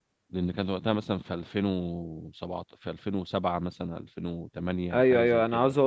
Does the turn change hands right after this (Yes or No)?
Yes